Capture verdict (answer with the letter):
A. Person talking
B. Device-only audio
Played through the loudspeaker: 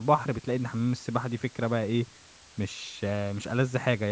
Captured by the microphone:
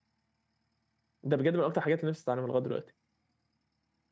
A